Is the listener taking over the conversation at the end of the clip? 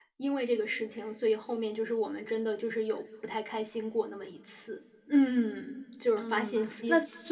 Yes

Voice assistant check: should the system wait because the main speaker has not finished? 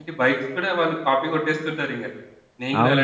No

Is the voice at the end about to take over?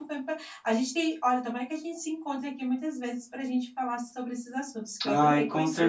Yes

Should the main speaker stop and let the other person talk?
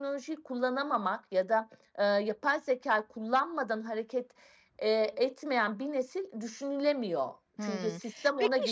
Yes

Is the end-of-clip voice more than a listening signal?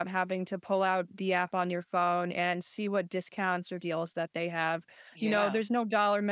No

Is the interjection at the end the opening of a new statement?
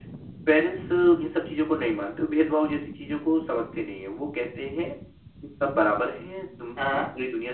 No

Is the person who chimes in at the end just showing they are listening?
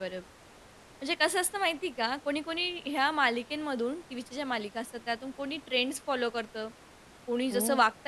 Yes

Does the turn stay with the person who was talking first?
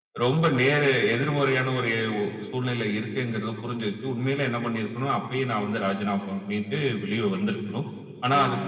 Yes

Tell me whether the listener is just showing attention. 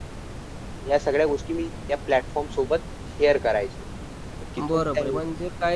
No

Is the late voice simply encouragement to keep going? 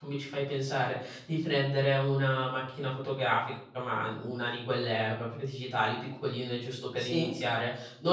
Yes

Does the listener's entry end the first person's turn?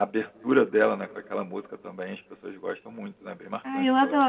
Yes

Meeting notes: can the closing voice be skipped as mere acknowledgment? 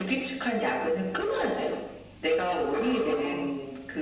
Yes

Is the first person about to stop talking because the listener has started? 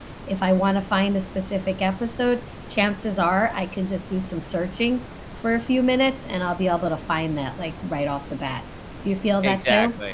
Yes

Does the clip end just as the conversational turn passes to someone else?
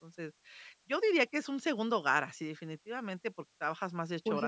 Yes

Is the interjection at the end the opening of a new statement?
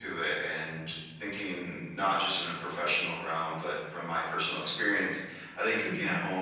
No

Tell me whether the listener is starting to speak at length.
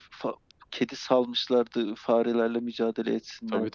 Yes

